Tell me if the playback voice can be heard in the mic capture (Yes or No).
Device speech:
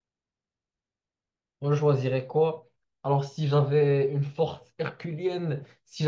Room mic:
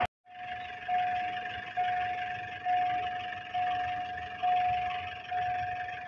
No